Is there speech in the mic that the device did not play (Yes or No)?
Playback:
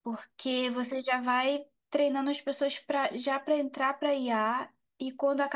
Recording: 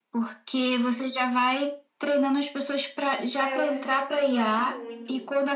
Yes